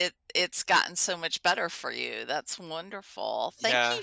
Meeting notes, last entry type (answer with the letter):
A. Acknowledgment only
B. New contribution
A